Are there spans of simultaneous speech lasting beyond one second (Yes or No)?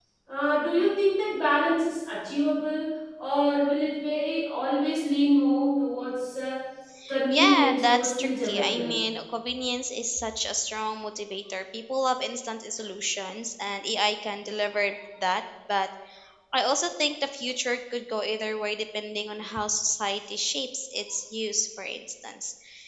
Yes